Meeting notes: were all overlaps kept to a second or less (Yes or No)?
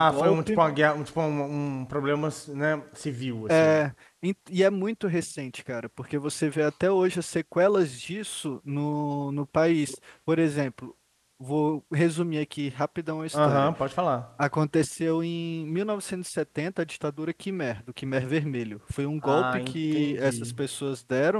No